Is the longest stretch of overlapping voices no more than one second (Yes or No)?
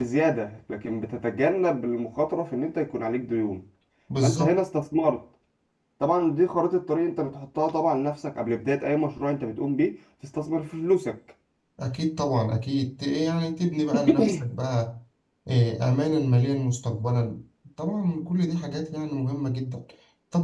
Yes